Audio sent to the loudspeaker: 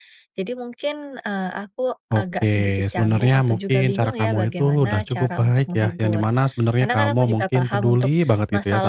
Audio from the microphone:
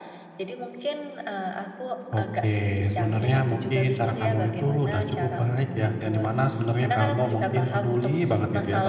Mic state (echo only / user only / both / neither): echo only